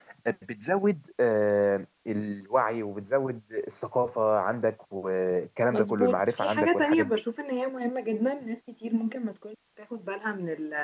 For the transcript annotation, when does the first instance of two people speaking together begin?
6 s

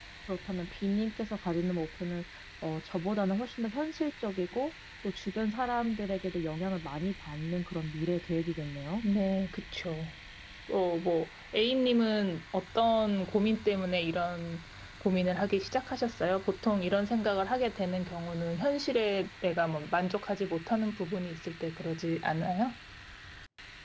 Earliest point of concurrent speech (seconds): none

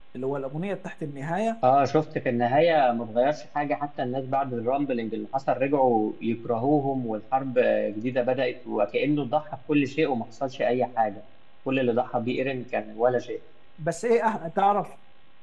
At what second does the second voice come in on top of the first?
none

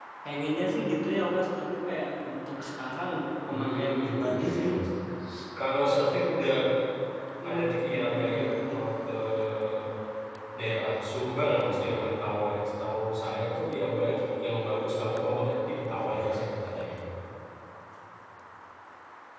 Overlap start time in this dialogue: 3 s

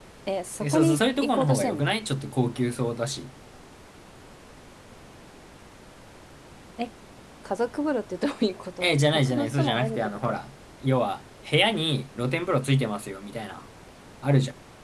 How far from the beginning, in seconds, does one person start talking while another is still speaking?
1 s

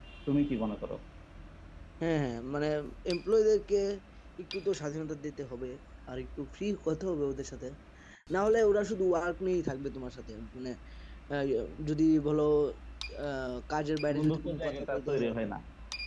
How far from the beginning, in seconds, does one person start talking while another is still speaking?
14 s

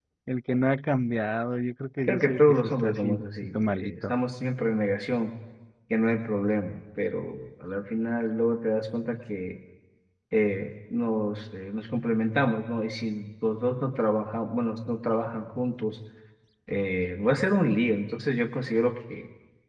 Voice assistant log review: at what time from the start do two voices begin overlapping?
2 s

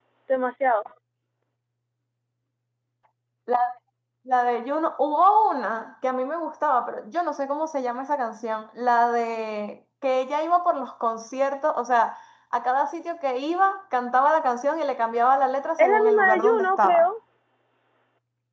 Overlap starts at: 16 s

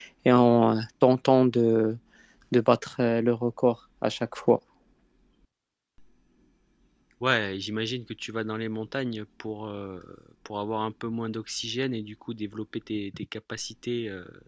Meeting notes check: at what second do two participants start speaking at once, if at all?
none

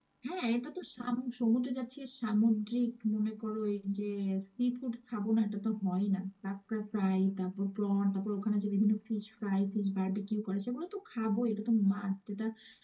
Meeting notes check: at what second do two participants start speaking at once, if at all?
none

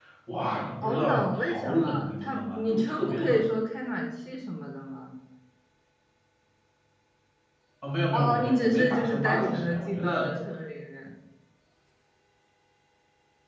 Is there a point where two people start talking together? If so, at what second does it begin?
1 s

